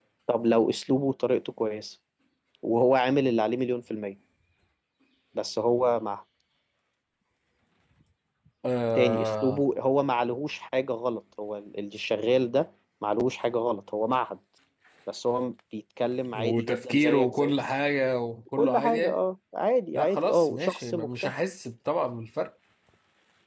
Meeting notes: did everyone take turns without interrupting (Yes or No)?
No